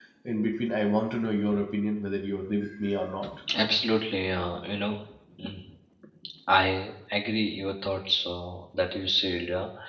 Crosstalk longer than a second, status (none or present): none